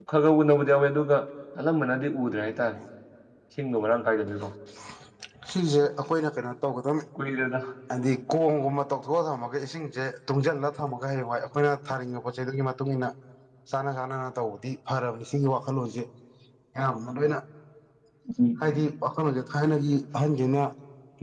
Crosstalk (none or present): none